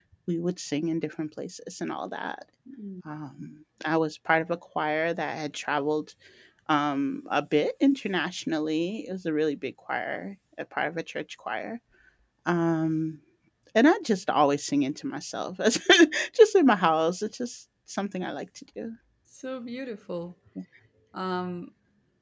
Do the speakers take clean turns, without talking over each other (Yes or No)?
Yes